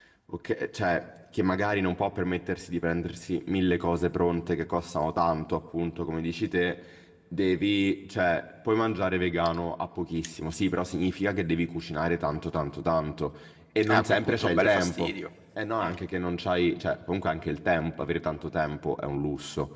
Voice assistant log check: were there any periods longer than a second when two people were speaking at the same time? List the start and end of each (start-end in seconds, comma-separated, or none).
13.9-15.1